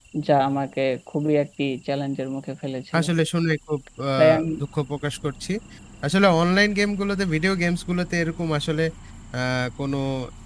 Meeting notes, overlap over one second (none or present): none